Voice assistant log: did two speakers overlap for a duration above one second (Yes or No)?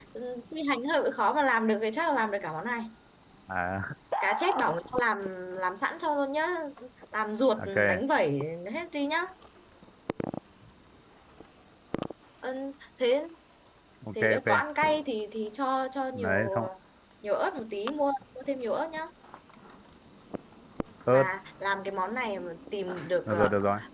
No